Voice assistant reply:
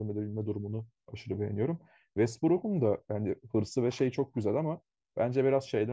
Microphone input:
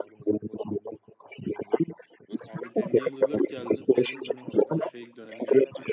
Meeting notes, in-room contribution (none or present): present